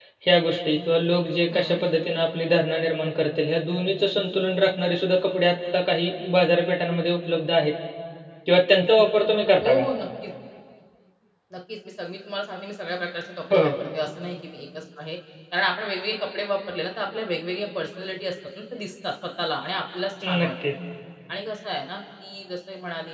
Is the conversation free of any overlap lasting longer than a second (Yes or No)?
Yes